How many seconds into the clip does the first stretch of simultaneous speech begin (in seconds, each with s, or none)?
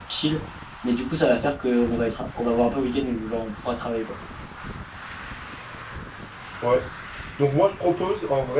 none